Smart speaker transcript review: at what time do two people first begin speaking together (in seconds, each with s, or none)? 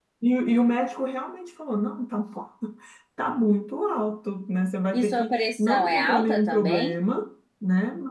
4.9 s